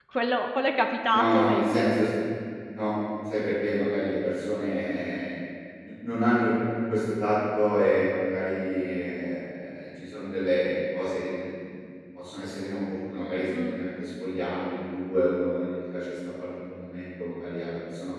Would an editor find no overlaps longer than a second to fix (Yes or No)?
Yes